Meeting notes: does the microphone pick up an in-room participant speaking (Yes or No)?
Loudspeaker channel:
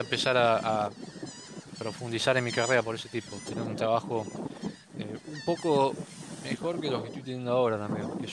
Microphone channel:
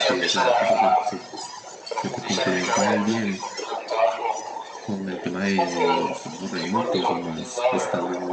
Yes